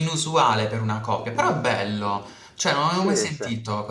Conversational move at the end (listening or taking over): listening